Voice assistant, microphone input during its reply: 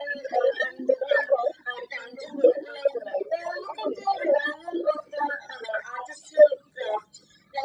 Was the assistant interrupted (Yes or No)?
No